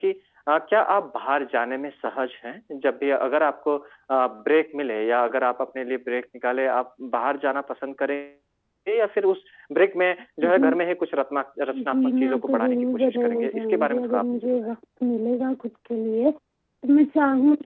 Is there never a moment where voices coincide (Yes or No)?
No